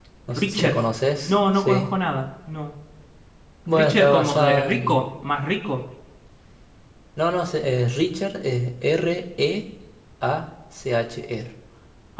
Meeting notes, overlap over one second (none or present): present